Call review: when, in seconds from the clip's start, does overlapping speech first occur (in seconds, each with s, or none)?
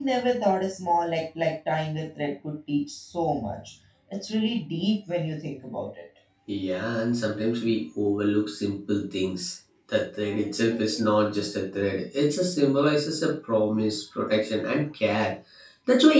none